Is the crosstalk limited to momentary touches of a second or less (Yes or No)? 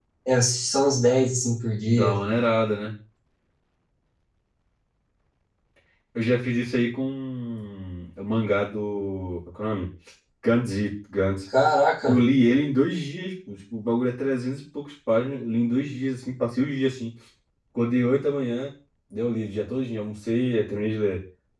Yes